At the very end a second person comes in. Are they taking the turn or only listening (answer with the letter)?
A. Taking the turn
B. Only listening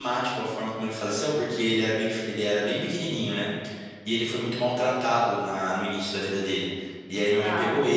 B